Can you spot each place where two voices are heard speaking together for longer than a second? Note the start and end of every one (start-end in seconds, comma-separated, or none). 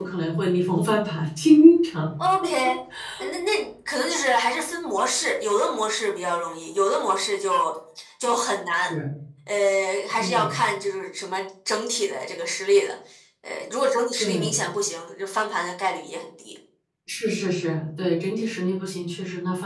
none